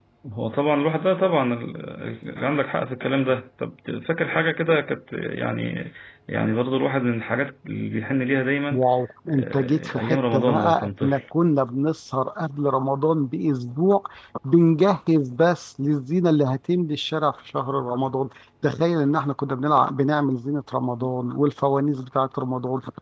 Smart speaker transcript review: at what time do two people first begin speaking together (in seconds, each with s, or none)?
9.3 s